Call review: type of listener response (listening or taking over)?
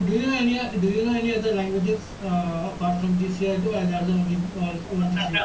taking over